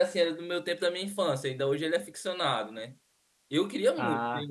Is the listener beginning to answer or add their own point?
No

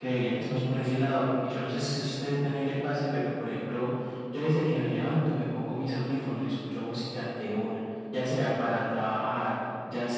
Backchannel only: Yes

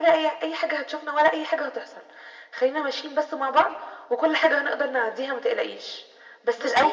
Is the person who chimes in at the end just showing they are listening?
Yes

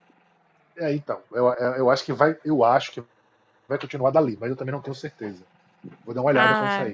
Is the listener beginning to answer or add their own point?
Yes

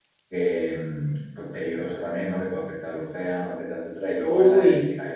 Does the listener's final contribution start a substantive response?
No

